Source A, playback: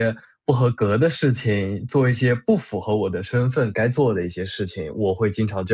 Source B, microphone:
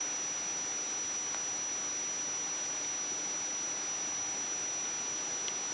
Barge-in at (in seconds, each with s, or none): none